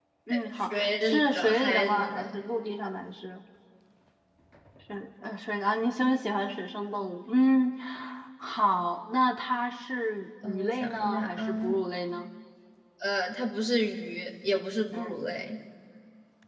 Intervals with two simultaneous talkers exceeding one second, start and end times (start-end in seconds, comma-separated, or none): 0.5-2.4, 10.4-11.7